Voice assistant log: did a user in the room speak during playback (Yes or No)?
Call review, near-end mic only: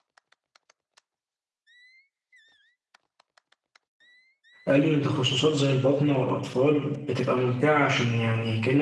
Yes